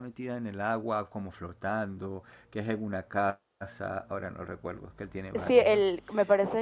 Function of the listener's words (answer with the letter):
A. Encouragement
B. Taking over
B